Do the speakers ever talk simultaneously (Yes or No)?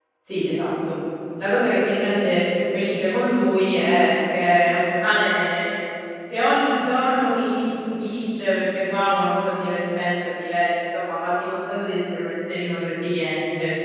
No